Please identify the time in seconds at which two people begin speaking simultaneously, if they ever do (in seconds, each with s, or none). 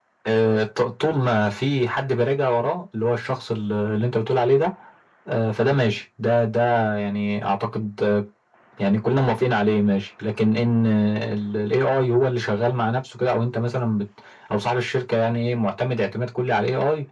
none